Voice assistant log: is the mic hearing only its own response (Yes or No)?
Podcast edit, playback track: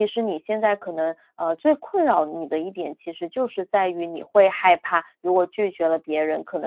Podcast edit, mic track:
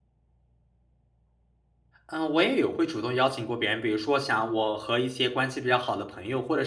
No